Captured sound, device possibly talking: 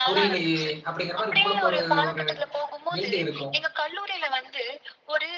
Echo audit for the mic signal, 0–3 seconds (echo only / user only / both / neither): both